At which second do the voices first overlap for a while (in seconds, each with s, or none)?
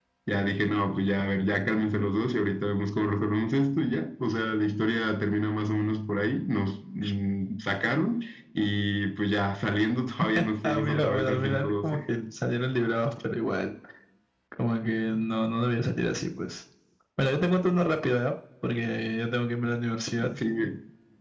10.6 s